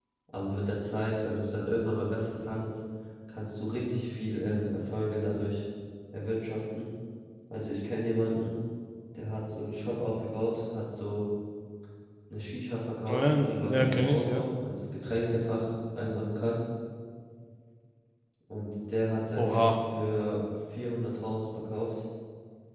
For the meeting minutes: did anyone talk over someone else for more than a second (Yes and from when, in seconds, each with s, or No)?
Yes, from 13.1 s